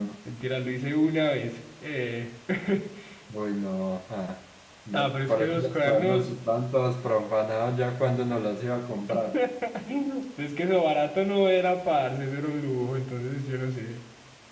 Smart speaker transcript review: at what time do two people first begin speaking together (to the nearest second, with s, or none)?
5 s